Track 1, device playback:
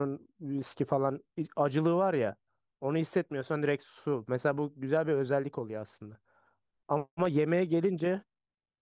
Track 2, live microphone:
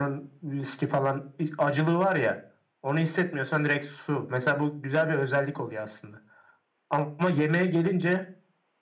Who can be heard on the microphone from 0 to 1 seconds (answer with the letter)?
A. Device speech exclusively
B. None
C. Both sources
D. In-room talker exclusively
A